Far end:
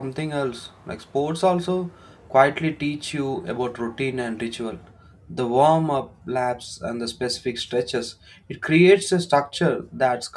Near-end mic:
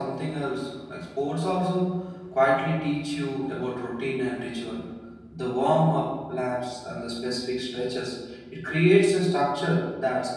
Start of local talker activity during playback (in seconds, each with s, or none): none